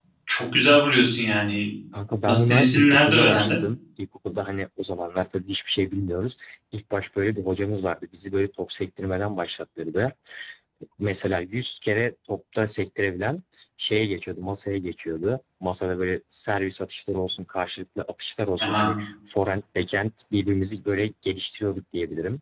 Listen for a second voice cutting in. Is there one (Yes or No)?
Yes